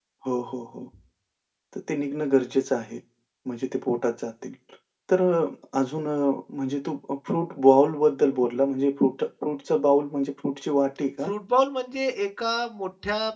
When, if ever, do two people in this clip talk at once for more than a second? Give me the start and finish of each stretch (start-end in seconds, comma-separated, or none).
none